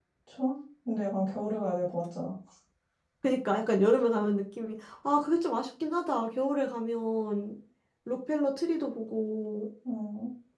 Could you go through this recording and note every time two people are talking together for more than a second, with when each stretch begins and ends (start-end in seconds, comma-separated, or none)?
none